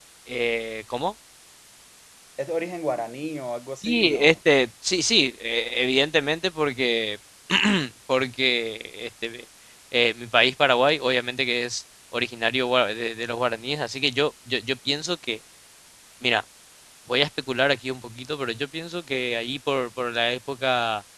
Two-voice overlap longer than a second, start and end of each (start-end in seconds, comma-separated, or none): none